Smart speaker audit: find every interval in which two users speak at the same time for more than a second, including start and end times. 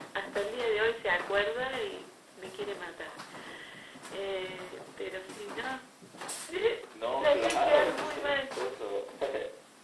7.2-8.4

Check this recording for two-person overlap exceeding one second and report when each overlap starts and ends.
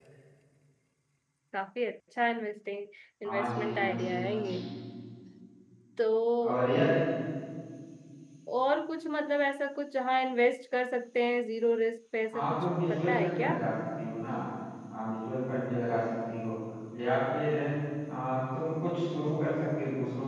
3.2-4.5, 12.3-13.5

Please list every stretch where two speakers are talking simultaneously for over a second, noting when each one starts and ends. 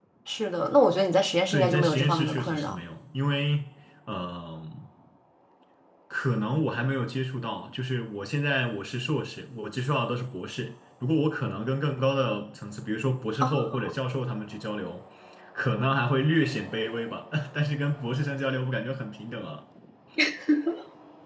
1.5-2.8

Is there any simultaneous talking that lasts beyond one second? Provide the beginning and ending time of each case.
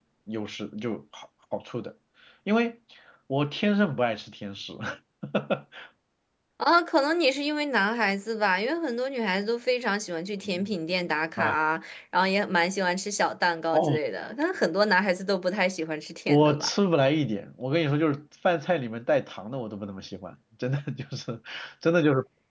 none

